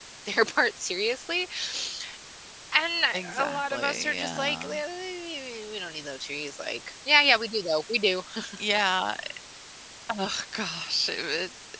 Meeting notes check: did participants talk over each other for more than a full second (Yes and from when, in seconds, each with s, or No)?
Yes, from 3.4 s